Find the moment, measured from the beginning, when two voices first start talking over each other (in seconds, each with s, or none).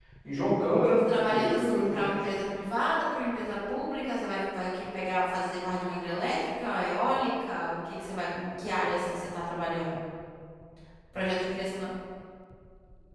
0.8 s